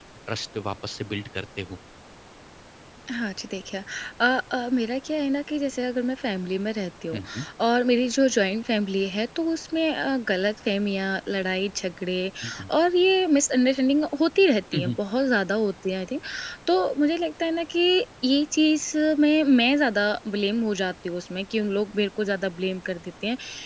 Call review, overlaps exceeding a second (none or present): none